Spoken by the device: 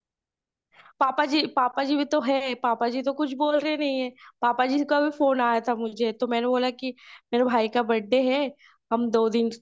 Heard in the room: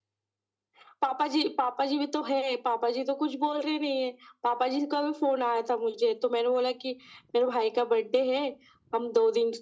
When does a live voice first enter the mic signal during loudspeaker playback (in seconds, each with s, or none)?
none